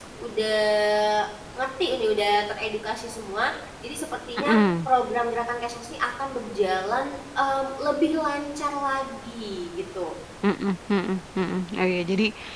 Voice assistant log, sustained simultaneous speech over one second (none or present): none